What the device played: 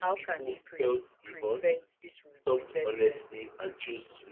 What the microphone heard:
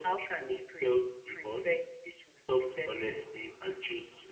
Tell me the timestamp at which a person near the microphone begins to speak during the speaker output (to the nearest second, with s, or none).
none